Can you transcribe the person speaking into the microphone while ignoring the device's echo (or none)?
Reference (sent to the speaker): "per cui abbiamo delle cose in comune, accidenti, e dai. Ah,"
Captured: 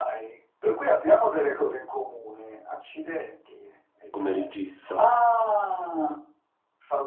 come regista.